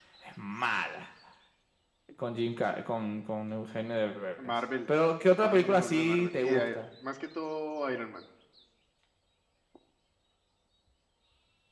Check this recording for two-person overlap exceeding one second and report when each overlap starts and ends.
5.4-6.8

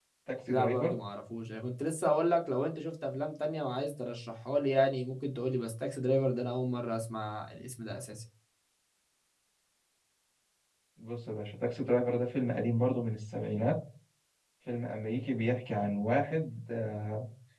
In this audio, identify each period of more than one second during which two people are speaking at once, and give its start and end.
none

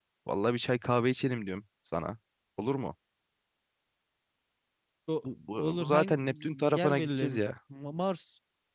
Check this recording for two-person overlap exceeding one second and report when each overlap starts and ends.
5.5-7.4

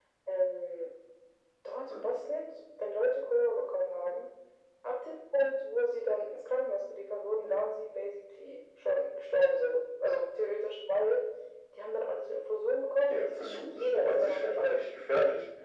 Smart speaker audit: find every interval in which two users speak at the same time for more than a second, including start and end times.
13.1-14.8

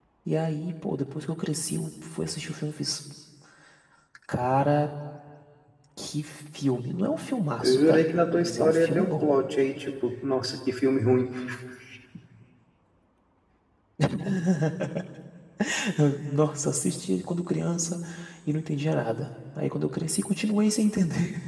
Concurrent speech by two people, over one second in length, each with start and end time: 7.6-9.3

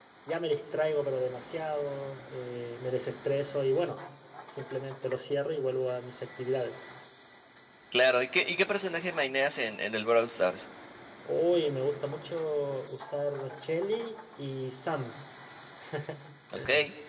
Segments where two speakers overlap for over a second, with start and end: none

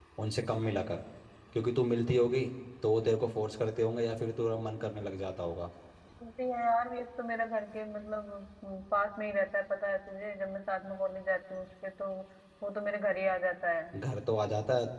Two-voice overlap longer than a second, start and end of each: none

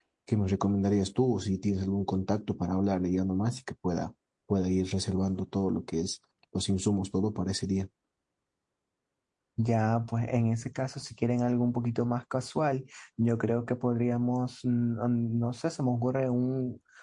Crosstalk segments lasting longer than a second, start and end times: none

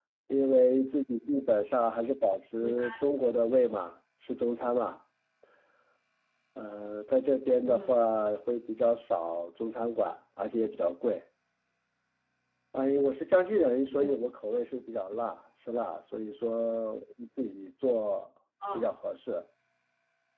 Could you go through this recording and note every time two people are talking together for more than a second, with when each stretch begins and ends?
none

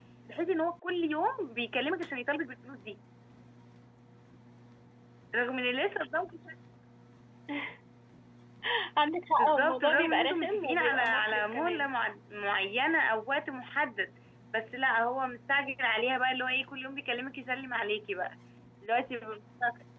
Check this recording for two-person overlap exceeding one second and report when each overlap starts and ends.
9.4-11.9

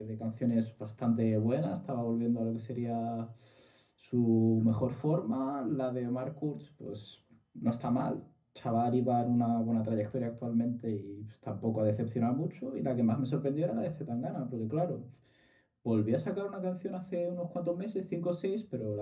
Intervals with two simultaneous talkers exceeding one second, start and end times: none

